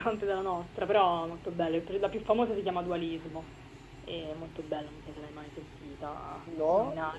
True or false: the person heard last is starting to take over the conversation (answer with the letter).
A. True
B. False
A